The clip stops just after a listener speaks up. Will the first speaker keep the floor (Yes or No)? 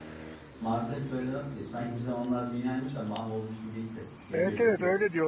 No